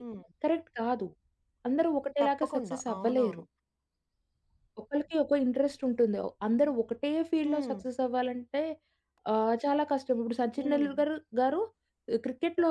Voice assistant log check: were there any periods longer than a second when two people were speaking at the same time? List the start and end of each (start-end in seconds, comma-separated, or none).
2.2-3.4